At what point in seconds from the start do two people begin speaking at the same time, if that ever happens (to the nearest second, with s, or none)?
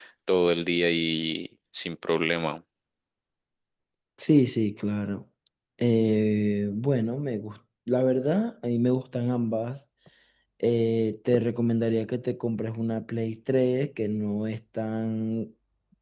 none